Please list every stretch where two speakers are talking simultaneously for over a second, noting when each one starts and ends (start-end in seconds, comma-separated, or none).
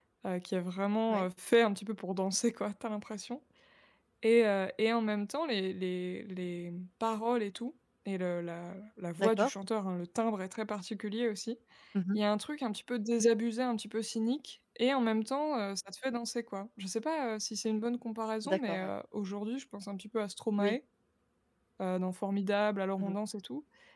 none